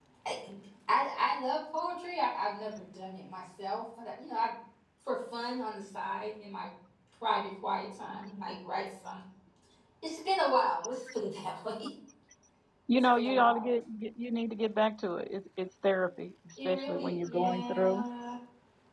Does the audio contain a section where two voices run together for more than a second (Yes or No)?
Yes